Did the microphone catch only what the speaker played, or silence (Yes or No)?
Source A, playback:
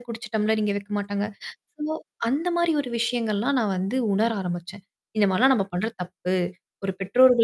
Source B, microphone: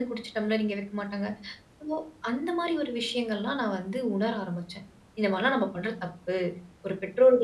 Yes